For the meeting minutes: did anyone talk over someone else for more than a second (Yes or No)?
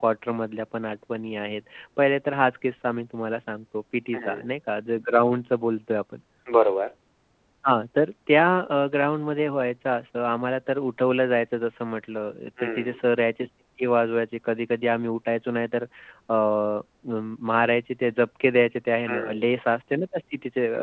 No